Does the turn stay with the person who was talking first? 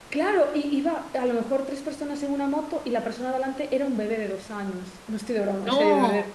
Yes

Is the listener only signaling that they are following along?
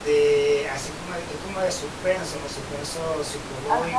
No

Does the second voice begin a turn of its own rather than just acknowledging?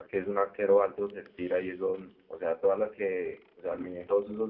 No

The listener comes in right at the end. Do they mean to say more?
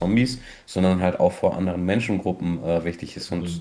No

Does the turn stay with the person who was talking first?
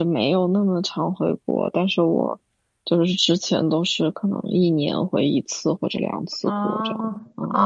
No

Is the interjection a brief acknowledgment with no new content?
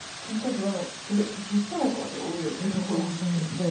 No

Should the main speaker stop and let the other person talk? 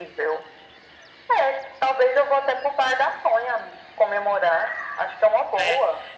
Yes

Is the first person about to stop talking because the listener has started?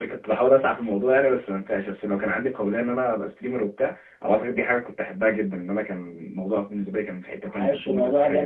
Yes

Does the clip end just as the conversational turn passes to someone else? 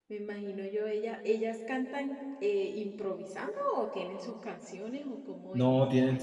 Yes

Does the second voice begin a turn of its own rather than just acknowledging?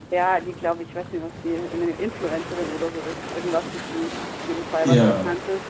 No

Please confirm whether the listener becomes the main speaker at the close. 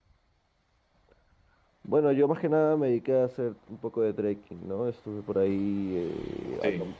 No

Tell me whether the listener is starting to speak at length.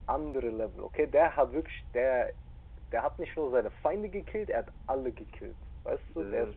No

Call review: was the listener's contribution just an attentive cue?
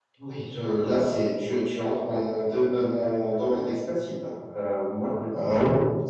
Yes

